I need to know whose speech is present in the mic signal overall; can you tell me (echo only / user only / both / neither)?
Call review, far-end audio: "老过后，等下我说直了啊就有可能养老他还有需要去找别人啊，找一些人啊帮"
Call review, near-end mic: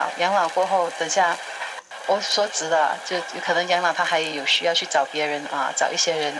echo only